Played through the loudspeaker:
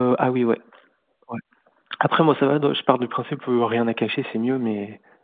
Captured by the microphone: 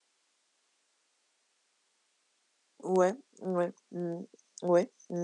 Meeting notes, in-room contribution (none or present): present